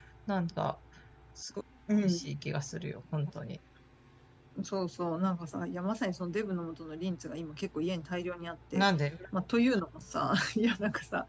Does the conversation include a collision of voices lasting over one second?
No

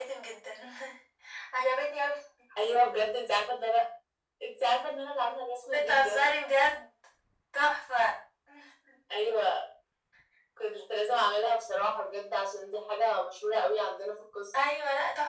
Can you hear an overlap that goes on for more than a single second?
No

